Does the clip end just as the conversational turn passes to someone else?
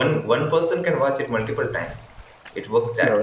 Yes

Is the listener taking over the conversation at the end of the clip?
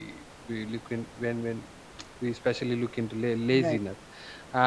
No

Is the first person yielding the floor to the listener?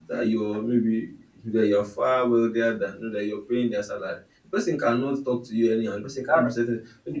No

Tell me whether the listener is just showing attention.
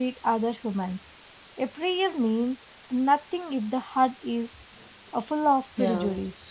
No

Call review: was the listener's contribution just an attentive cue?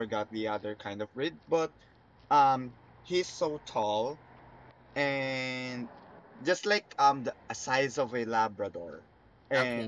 Yes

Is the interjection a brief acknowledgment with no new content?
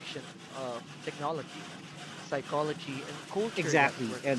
No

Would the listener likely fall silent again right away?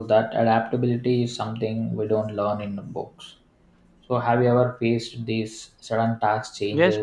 No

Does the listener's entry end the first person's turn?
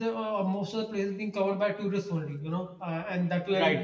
No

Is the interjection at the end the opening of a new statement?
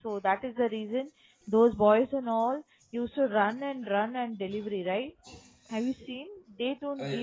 No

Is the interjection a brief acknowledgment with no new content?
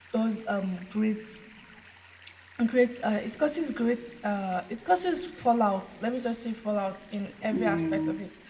Yes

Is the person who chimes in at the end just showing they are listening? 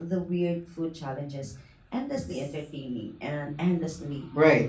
No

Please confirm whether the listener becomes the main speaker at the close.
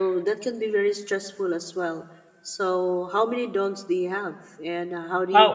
No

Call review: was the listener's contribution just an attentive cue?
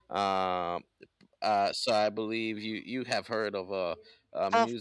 No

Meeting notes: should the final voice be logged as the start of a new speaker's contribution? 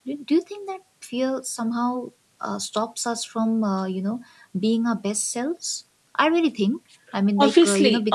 Yes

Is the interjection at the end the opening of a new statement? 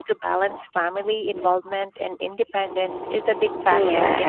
Yes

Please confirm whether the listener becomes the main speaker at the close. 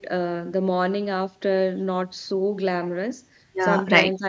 No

